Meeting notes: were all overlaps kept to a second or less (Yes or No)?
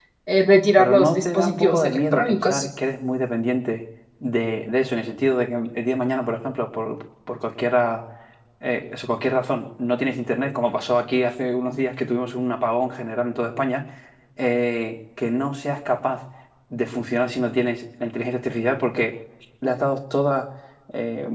No